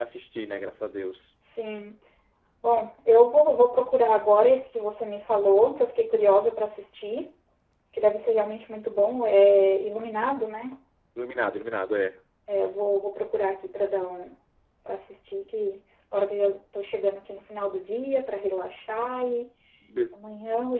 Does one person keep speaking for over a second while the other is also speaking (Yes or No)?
No